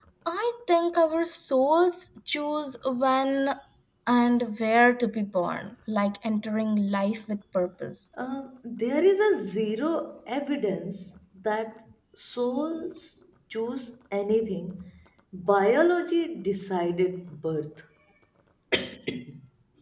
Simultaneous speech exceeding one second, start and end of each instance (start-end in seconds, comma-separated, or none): none